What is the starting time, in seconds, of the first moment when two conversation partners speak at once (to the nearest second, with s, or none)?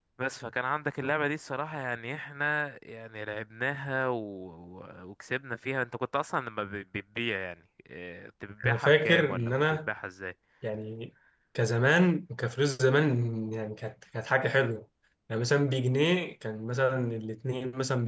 9 s